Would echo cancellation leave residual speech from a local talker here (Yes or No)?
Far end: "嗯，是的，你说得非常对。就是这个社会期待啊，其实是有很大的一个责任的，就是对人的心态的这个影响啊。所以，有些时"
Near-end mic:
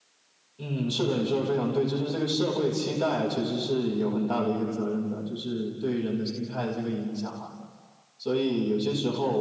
No